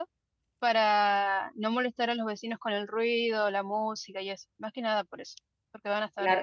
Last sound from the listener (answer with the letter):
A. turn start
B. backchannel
A